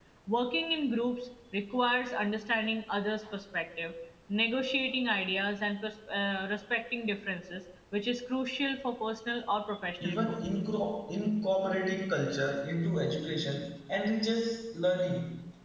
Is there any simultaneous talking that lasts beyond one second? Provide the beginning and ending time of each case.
none

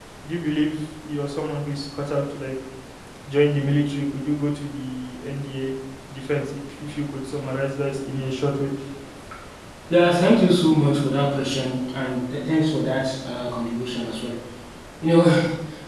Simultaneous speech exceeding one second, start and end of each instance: none

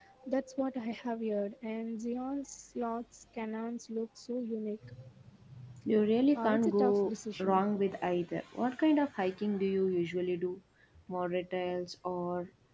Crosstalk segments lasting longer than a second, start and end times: 6.3-7.6

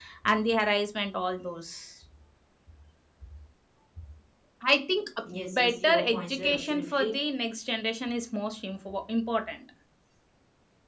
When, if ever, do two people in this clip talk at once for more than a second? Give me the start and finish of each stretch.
5.3-7.1

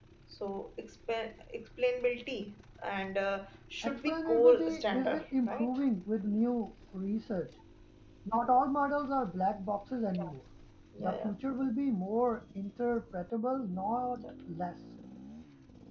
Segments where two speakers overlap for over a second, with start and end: 3.8-5.7

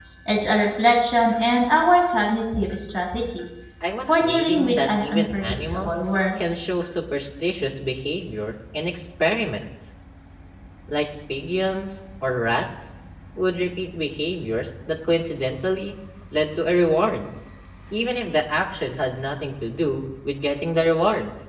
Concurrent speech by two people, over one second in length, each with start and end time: 4.1-5.9

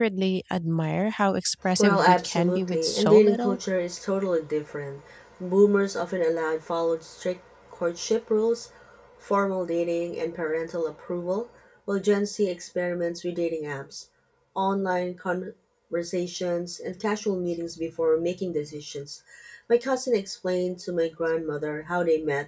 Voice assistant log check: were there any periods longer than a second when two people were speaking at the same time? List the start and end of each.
1.8-3.6

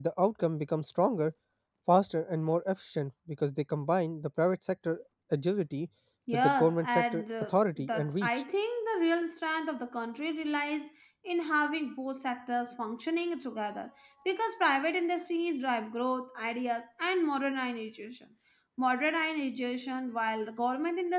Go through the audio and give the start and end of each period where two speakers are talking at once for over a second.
6.3-8.3

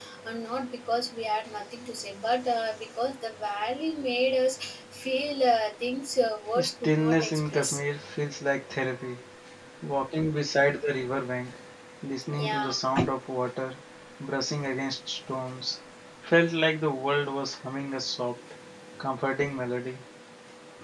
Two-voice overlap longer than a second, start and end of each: 6.6-7.8

